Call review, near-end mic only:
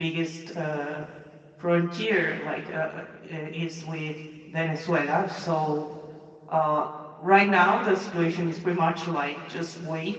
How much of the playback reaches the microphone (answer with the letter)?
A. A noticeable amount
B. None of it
B